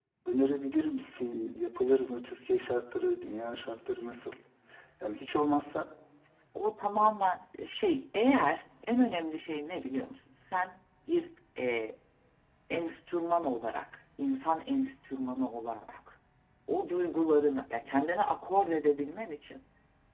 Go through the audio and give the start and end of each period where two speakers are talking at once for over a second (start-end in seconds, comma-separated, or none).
none